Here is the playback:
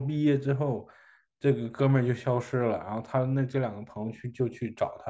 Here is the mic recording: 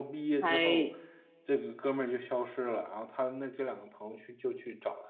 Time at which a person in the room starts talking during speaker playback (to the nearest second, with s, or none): 0 s